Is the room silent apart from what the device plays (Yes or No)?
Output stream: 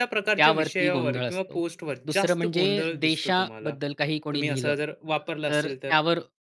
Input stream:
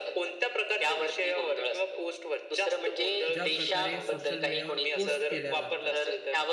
No